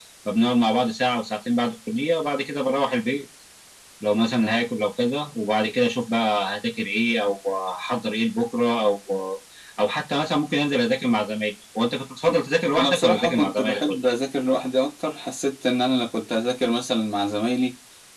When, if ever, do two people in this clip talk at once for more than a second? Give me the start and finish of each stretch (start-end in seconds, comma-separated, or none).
12.8-14.1